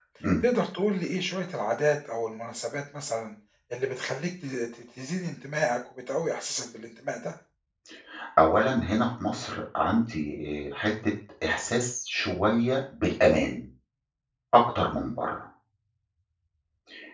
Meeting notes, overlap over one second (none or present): none